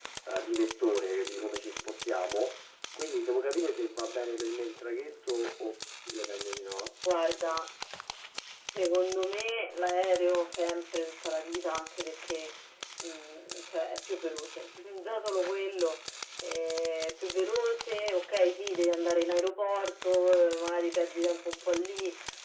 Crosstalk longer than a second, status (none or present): none